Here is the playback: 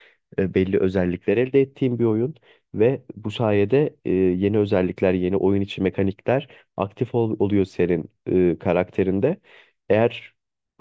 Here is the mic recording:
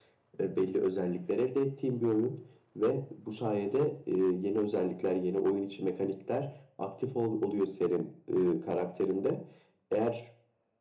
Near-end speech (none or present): none